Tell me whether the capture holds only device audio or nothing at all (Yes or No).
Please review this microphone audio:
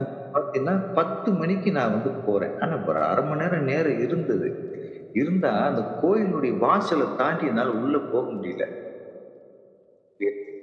Yes